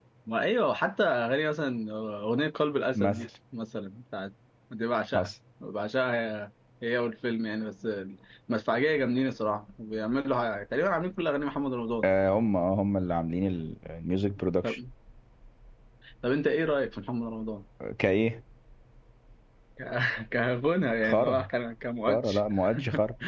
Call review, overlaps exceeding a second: none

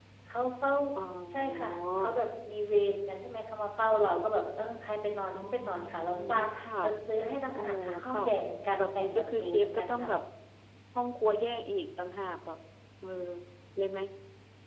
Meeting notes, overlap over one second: present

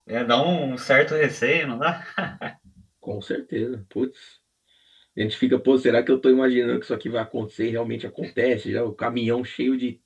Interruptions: none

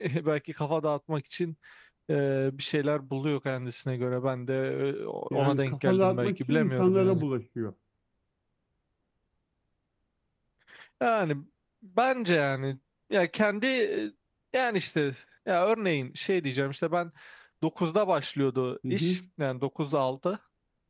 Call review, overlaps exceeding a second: present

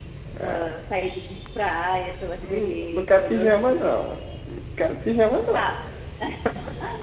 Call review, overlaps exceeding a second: present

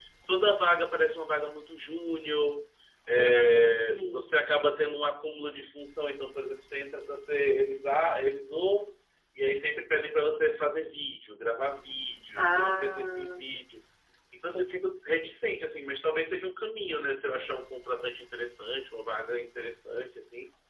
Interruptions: present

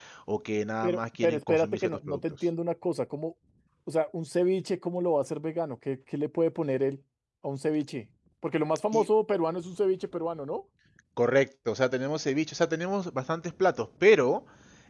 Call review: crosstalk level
present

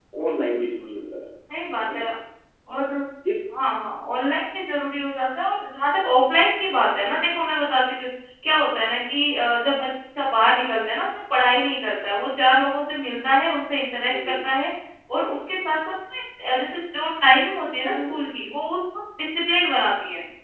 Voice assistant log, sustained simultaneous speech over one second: none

